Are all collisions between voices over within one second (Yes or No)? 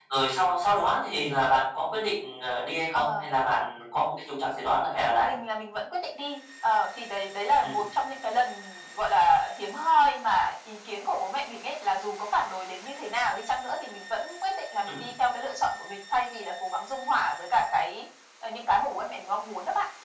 Yes